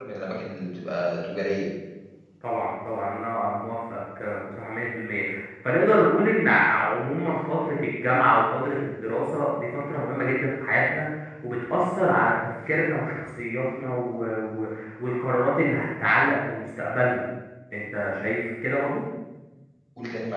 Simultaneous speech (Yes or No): No